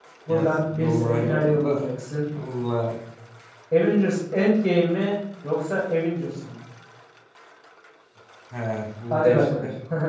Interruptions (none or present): present